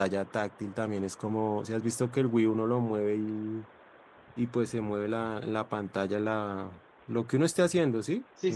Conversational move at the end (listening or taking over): taking over